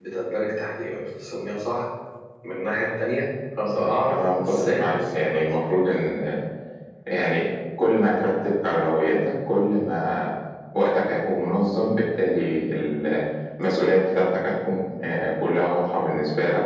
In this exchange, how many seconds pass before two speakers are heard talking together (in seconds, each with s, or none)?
3.8 s